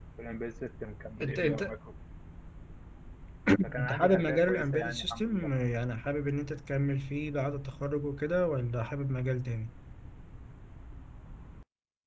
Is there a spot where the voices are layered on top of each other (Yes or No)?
Yes